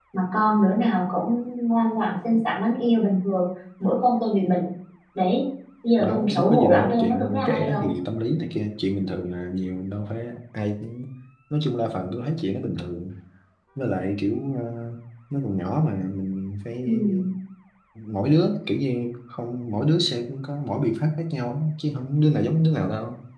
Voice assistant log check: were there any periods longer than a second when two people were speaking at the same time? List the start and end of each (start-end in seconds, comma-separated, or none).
6.0-7.9